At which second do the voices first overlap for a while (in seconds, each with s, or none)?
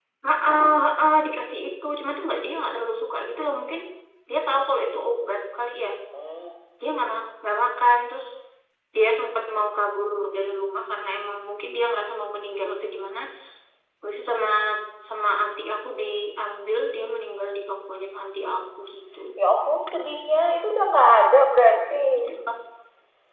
none